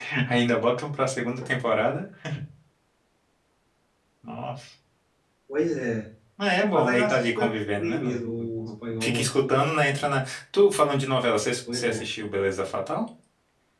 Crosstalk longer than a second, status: present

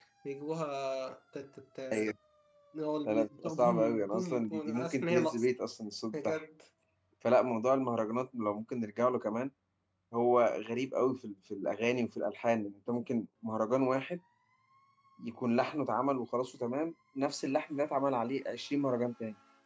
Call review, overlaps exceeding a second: present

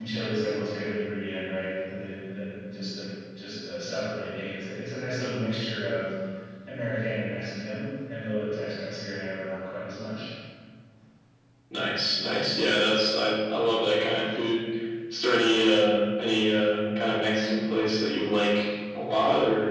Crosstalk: none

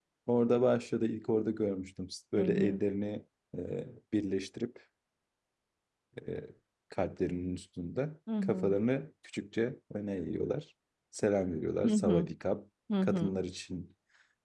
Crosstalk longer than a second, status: none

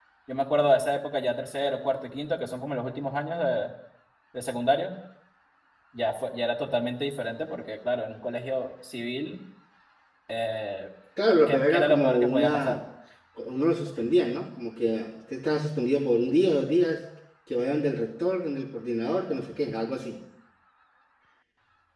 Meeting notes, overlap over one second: present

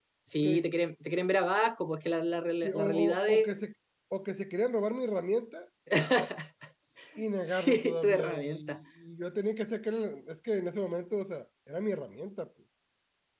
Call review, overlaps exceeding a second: present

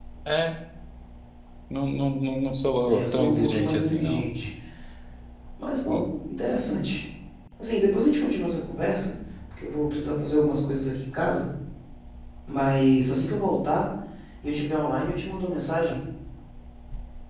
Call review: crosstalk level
present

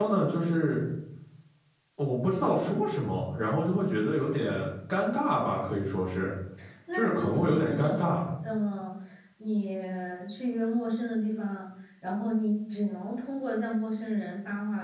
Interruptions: present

